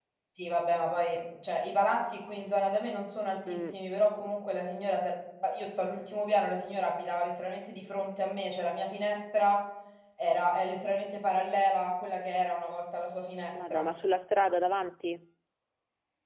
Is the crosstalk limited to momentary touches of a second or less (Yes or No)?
Yes